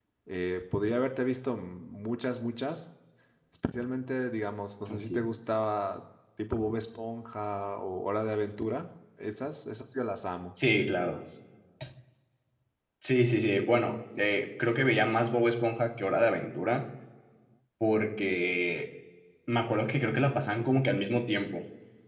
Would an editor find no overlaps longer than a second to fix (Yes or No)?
Yes